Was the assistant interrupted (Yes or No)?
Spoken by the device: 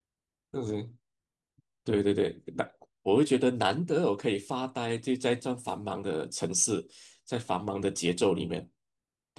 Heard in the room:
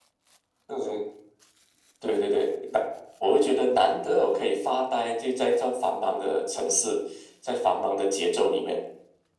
No